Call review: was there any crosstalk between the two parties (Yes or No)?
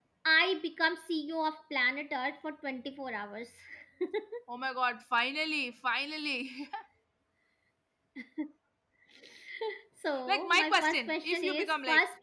Yes